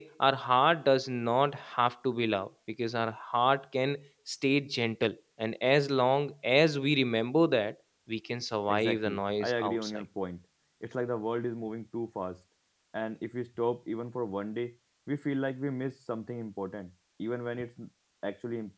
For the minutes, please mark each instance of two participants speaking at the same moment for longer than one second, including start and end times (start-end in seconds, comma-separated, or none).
8.7-10.0